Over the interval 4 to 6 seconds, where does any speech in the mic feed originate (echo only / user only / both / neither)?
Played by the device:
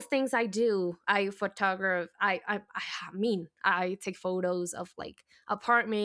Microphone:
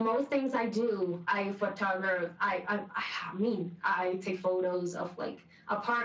echo only